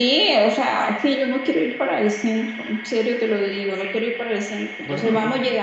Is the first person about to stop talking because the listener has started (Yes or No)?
No